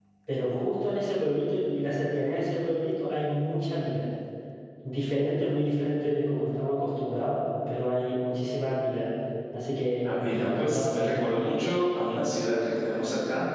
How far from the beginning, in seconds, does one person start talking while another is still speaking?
10.0 s

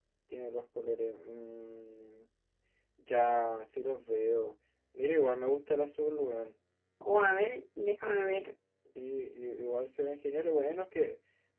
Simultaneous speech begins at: none

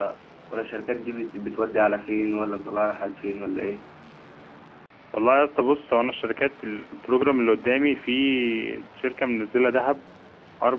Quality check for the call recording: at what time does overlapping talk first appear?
none

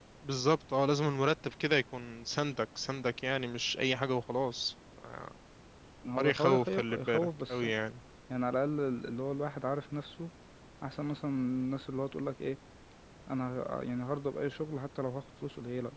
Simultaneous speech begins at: 6.2 s

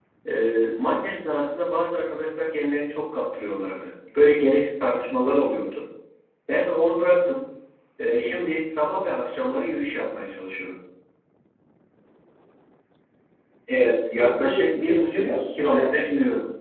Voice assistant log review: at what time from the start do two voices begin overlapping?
14.2 s

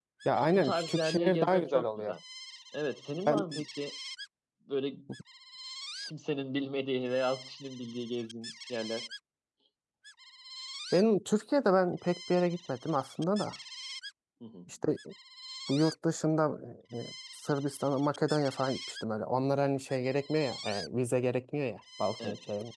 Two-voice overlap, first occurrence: 0.5 s

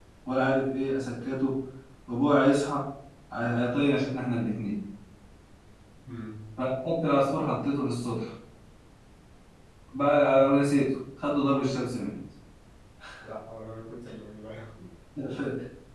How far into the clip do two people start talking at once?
none

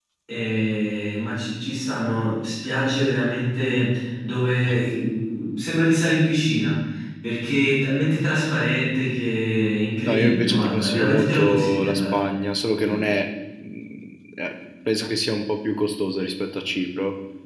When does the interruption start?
10.0 s

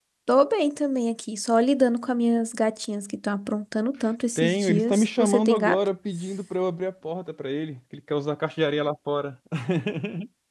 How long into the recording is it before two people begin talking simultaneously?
4.4 s

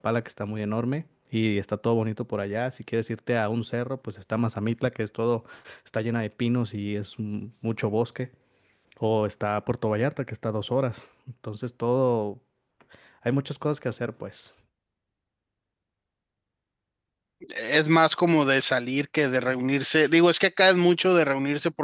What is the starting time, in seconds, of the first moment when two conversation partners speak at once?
none

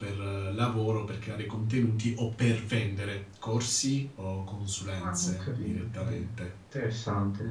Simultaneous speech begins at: 5.0 s

